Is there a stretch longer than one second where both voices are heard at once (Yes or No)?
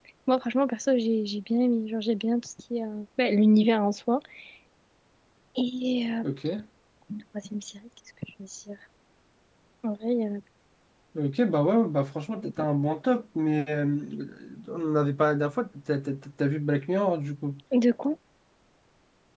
No